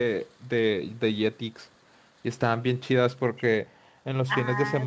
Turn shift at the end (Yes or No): No